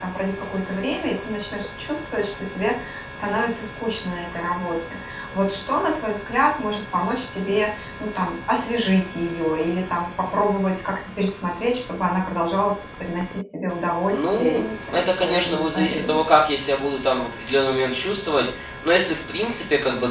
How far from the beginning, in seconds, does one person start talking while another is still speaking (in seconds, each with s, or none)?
14.1 s